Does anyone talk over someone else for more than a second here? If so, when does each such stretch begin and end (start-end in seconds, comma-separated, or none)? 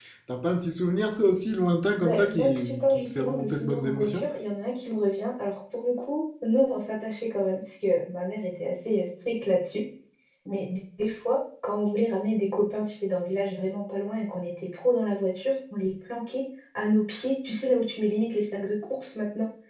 1.9-4.2